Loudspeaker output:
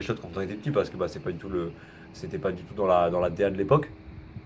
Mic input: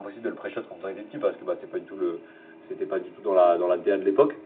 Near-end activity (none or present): none